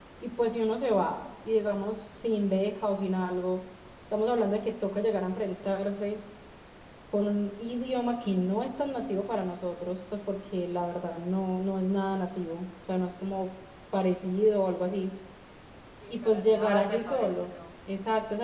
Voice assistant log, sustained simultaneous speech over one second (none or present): present